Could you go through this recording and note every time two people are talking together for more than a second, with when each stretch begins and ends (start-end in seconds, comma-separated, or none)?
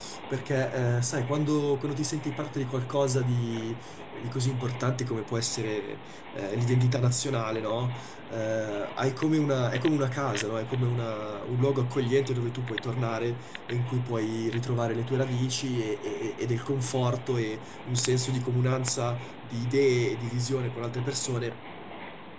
none